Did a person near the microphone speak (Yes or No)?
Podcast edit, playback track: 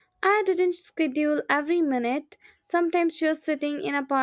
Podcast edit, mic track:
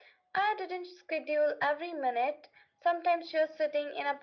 No